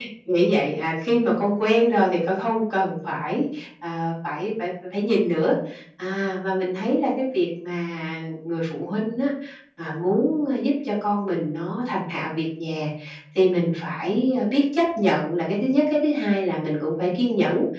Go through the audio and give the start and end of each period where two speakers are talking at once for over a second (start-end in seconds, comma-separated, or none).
none